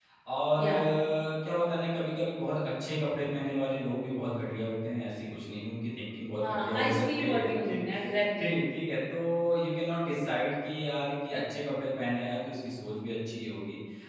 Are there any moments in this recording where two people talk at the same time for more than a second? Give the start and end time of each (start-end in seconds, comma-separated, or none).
6.4-7.8